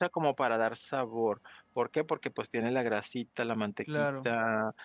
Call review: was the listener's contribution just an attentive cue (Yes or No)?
Yes